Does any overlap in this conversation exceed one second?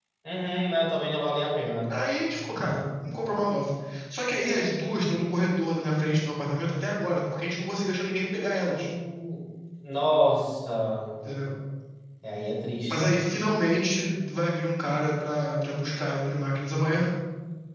No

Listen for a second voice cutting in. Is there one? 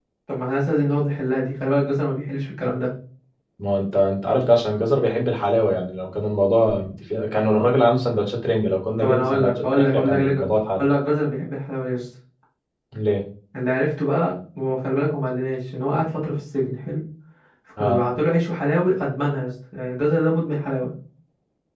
Yes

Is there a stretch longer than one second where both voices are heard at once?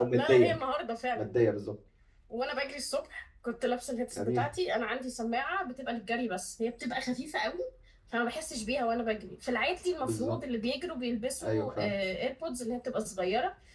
No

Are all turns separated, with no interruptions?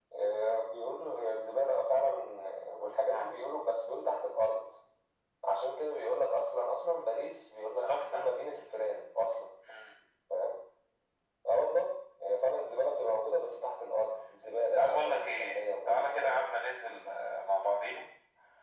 No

